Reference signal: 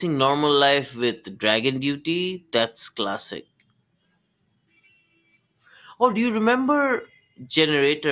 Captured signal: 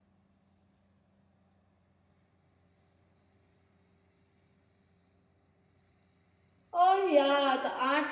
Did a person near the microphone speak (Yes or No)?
Yes